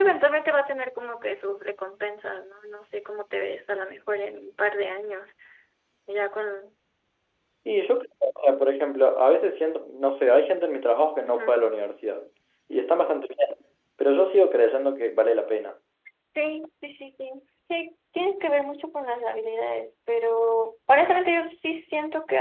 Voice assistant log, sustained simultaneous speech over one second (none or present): none